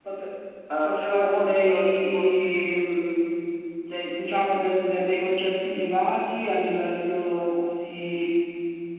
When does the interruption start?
0.8 s

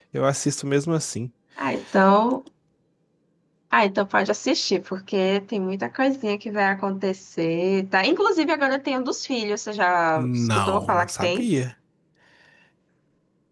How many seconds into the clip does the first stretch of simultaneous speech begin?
10.2 s

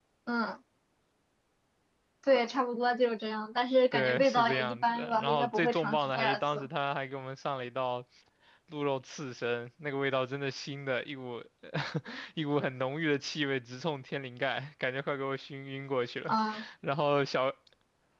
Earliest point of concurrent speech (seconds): 3.9 s

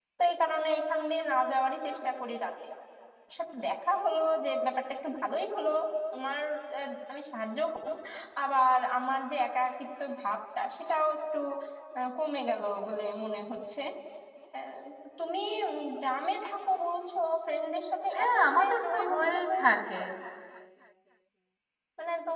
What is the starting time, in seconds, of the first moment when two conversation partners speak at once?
18.1 s

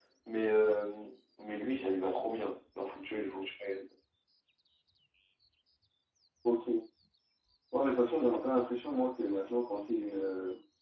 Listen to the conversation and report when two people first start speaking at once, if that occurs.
none

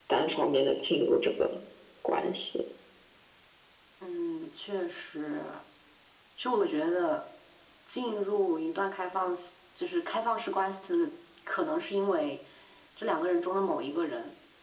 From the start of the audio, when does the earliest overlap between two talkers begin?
none

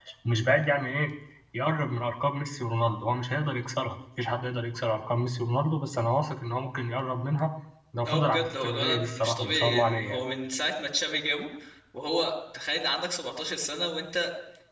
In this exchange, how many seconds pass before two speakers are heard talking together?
8.1 s

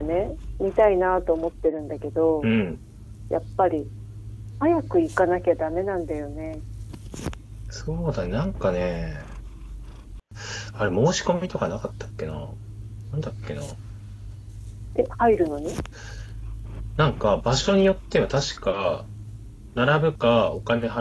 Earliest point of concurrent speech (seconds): none

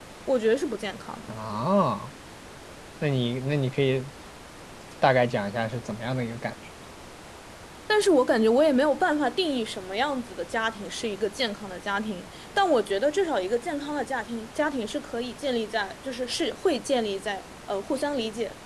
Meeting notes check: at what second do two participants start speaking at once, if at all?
none

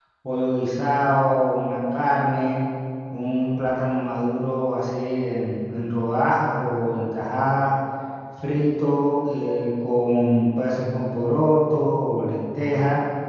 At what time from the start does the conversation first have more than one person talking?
none

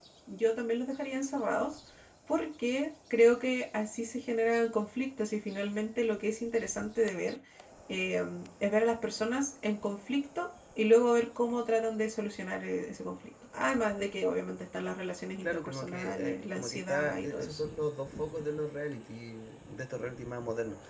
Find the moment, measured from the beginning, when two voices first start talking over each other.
15.4 s

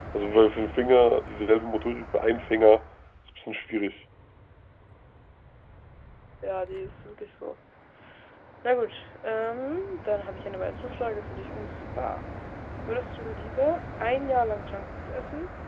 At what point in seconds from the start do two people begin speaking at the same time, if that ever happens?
none

